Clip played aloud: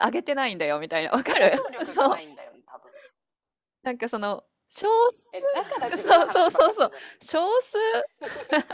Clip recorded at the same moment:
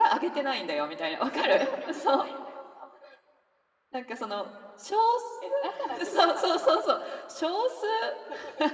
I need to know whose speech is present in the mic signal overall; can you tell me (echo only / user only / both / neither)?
echo only